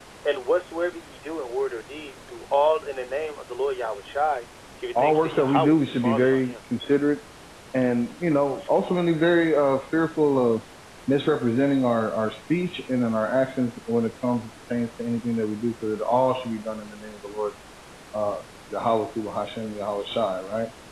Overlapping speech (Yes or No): Yes